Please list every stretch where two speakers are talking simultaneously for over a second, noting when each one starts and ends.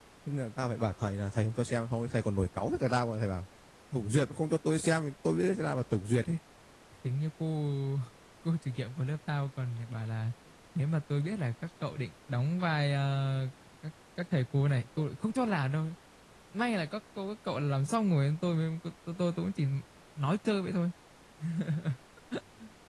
none

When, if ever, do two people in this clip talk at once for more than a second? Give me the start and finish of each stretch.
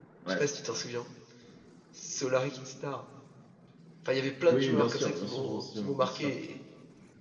4.5-6.3

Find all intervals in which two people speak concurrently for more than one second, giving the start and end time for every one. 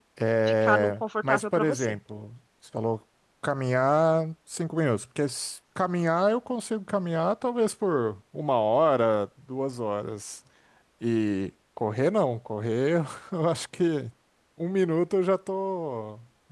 0.6-1.9

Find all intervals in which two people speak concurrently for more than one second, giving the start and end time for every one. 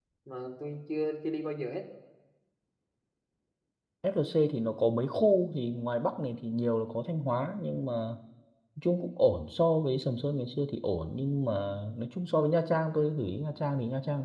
none

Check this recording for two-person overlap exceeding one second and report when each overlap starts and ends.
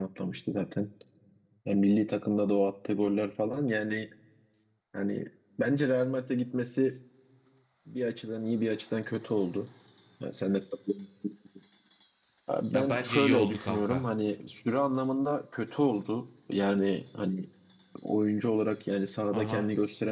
12.7-14.0

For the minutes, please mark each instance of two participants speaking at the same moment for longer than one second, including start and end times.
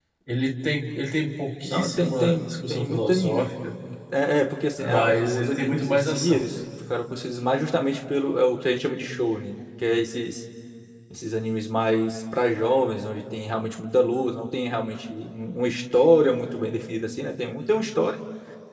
1.6-3.5, 4.8-6.6

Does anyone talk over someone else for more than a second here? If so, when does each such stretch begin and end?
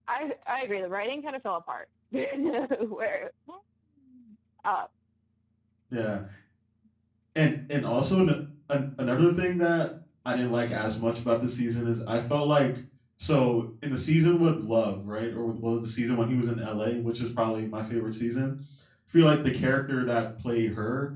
none

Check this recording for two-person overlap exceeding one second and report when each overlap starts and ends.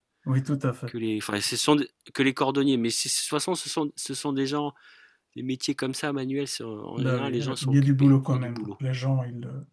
7.0-8.7

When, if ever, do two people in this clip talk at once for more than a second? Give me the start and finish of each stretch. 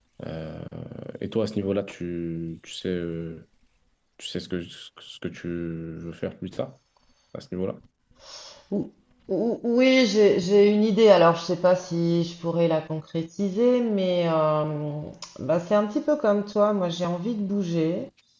none

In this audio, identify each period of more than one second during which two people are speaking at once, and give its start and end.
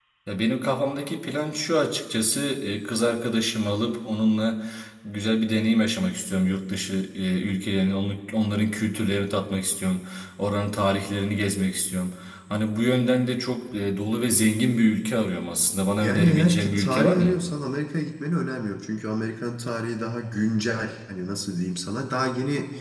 16.0-17.3

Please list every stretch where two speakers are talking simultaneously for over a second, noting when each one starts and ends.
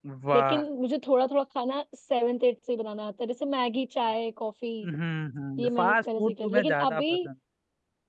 5.6-7.0

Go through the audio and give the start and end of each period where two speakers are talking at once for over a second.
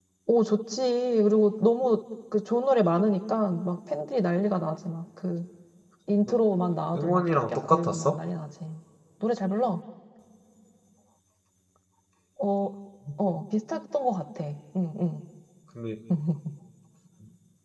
6.9-8.2

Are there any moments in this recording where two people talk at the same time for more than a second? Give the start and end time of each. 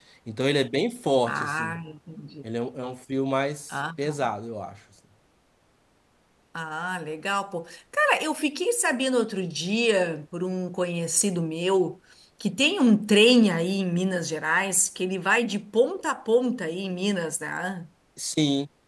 none

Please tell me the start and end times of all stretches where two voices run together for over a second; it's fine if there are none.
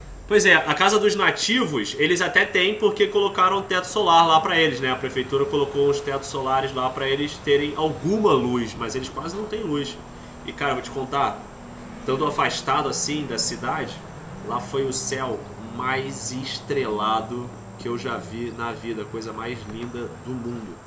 none

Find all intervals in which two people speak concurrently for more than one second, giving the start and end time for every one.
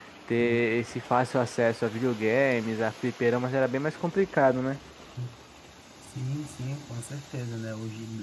none

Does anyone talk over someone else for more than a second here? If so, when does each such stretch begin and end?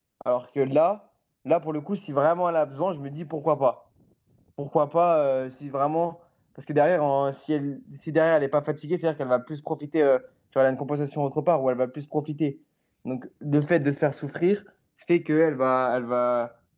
none

